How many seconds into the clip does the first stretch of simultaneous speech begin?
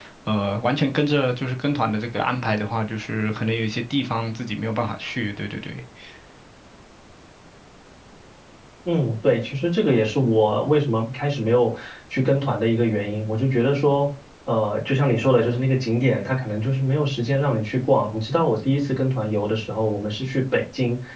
none

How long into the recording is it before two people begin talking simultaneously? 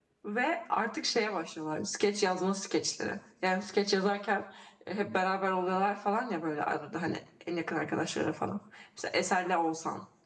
none

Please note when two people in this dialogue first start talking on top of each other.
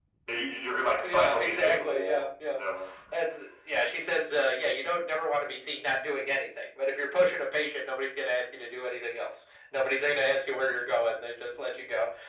1 s

